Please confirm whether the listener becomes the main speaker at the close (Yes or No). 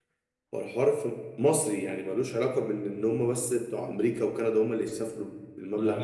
Yes